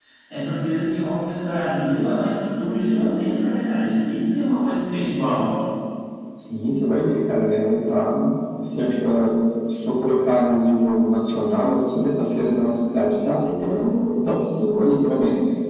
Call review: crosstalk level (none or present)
none